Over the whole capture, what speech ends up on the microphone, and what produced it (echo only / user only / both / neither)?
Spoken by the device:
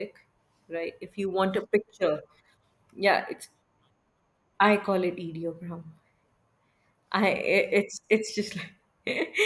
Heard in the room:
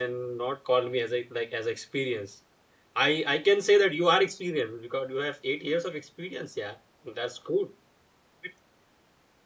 user only